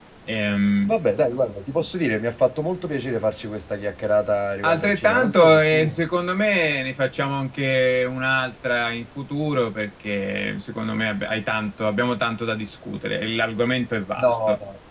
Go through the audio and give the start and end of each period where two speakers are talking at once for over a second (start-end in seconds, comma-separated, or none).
4.6-6.0